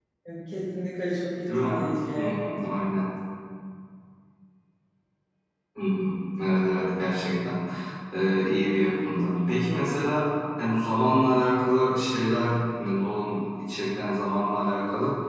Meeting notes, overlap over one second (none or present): none